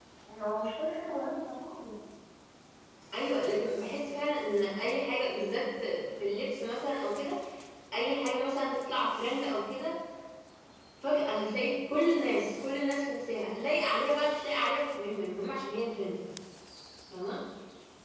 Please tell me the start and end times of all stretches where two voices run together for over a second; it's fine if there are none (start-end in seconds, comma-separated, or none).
none